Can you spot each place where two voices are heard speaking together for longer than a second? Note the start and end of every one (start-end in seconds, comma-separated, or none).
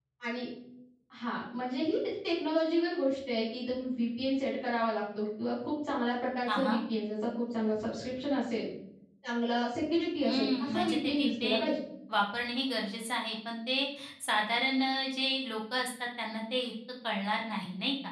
10.2-11.7